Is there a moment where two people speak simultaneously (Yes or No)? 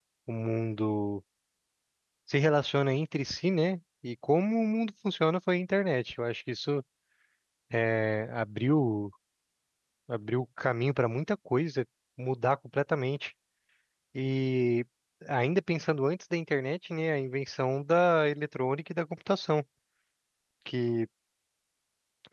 No